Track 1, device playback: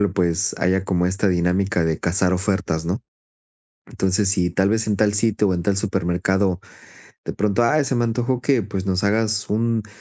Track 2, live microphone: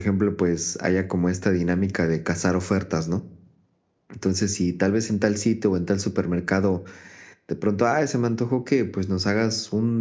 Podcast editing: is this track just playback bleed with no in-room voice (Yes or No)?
Yes